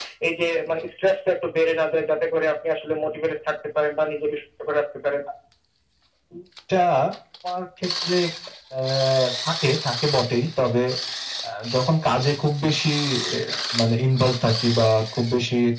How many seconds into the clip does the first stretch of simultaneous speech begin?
none

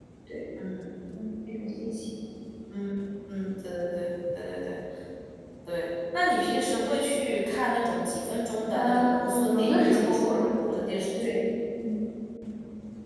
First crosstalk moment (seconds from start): 8.7 s

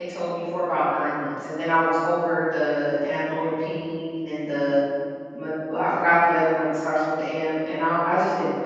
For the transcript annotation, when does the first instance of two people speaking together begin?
none

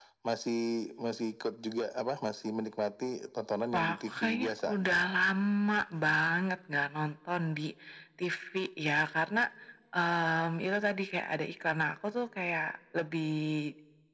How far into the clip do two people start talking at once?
3.7 s

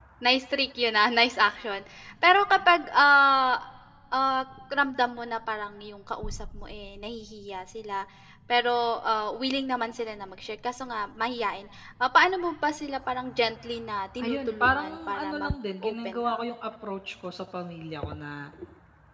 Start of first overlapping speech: 14.2 s

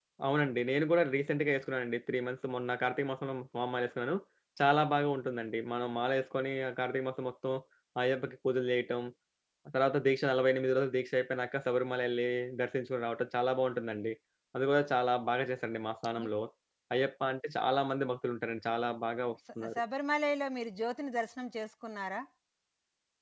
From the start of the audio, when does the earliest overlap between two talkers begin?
none

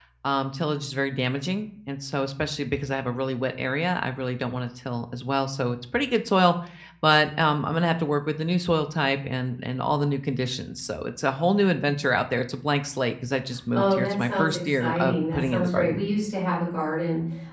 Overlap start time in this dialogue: 13.7 s

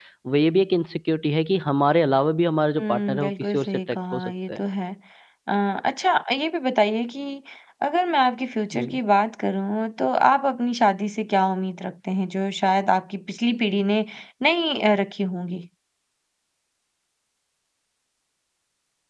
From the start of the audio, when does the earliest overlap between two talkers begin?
2.8 s

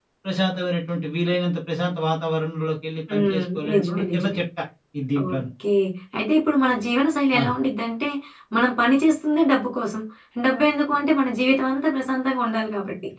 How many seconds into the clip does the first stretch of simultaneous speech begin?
3.1 s

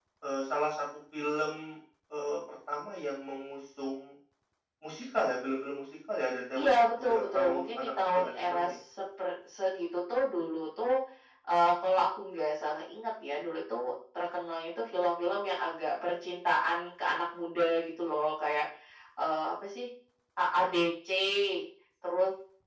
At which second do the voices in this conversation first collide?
6.5 s

